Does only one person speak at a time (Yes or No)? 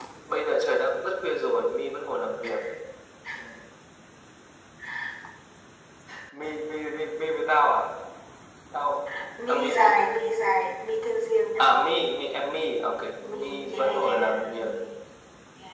No